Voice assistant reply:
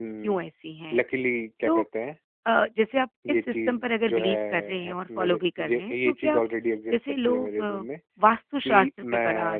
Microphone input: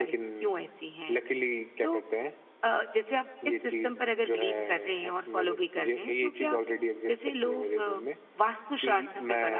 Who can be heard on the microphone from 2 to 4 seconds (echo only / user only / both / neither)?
echo only